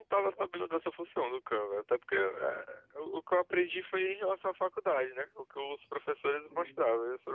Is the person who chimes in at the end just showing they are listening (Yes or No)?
Yes